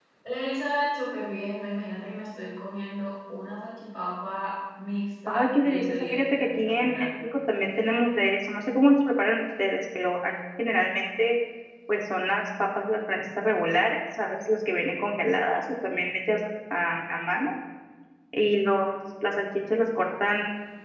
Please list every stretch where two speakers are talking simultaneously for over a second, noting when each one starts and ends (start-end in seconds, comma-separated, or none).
5.3-7.1